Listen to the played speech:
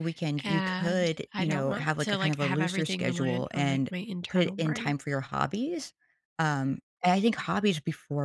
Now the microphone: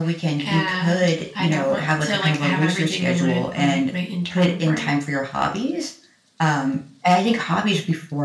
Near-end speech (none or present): none